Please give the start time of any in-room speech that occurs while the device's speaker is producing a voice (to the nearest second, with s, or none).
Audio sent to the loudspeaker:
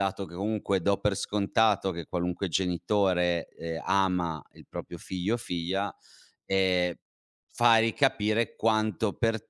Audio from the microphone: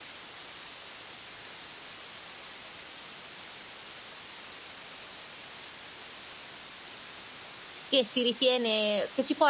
8 s